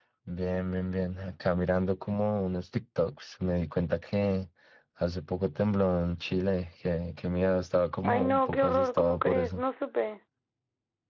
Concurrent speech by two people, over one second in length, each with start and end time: 8.0-9.6

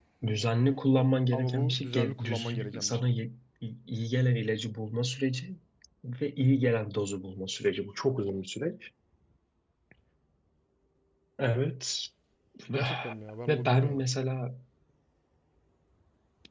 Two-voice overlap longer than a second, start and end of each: 1.3-3.0

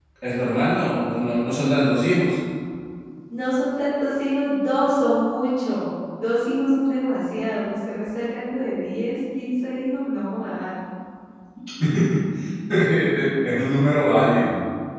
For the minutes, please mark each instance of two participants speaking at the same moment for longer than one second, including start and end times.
none

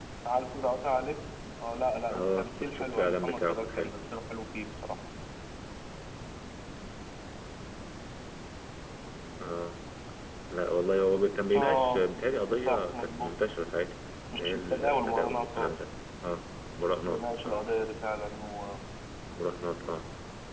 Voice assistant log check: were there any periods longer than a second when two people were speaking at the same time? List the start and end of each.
2.1-3.9, 11.6-13.3, 14.4-15.7

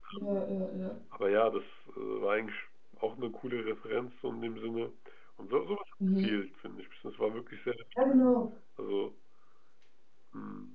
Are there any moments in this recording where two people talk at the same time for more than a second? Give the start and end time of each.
none

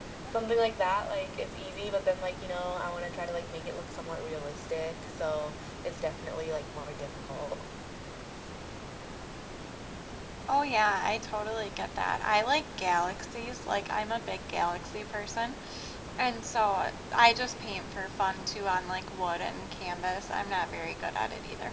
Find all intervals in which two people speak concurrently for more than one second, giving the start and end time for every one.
none

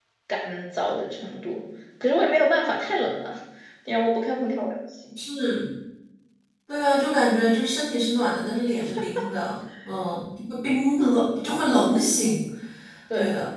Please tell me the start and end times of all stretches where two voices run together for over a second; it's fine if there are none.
none

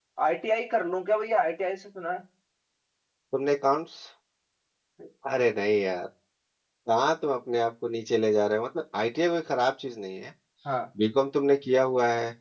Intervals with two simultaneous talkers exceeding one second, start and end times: none

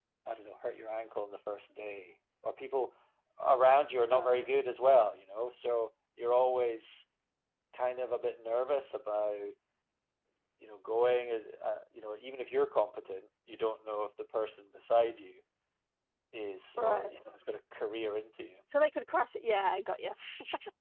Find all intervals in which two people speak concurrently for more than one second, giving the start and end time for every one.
none

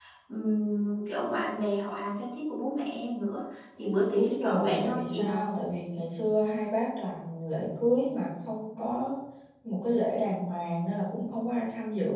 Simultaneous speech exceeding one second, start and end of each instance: 4.2-5.4

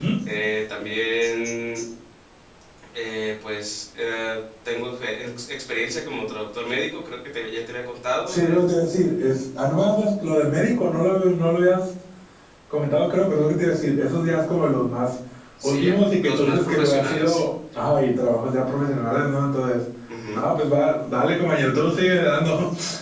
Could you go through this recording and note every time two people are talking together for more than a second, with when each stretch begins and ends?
15.6-17.5

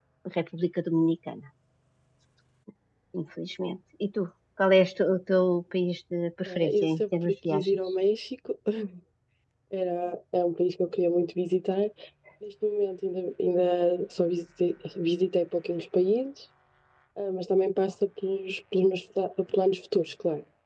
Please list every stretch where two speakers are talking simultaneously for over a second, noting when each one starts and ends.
6.5-7.8

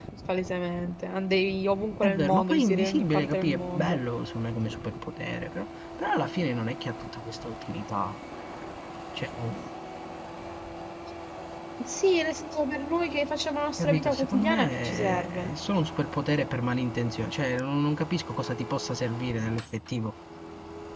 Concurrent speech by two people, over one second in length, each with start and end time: 2.0-4.0, 13.8-15.5

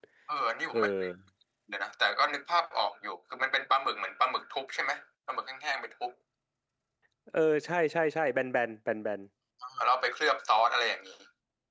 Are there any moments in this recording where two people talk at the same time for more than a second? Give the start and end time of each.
none

